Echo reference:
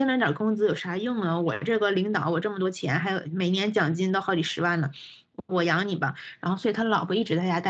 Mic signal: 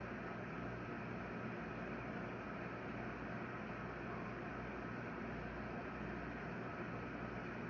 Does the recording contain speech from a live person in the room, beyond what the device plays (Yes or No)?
No